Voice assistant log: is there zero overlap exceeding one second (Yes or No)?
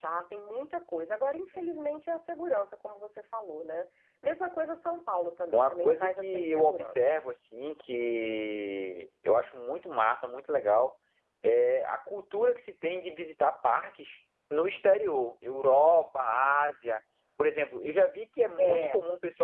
No